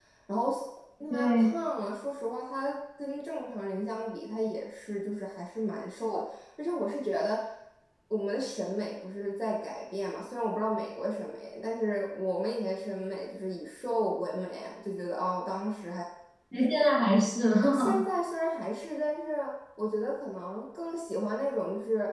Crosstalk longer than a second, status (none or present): none